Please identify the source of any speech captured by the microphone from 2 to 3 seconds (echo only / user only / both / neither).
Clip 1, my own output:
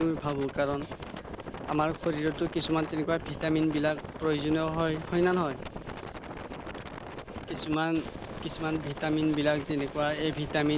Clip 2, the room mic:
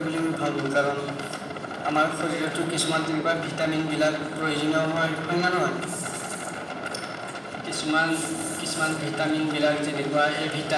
echo only